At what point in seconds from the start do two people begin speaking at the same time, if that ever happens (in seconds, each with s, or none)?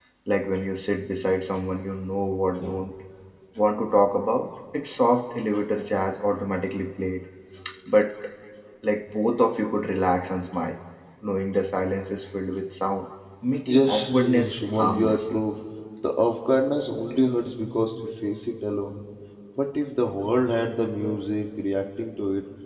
13.7 s